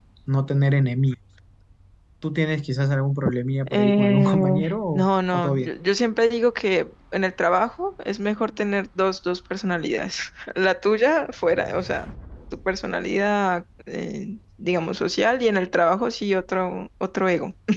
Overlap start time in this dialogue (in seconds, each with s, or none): 3.7 s